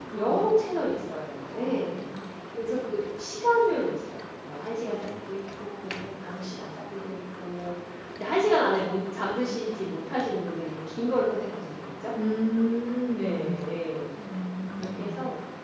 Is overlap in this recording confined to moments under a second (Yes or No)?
Yes